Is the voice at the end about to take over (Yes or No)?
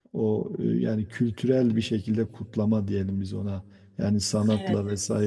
No